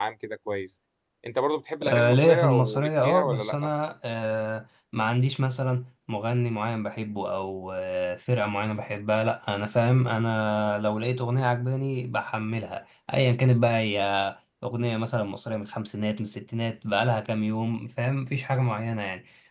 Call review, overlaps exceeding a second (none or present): present